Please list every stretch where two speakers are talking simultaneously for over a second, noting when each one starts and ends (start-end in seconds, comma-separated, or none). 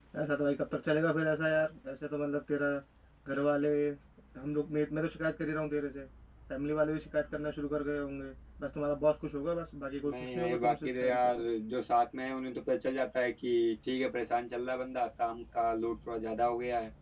10.1-11.5